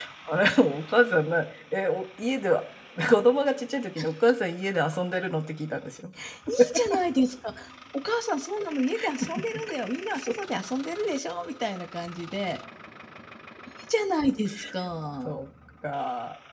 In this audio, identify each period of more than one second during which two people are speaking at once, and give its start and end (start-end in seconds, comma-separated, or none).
none